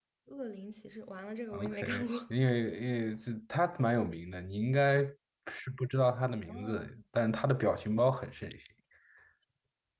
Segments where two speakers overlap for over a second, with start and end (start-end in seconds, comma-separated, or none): none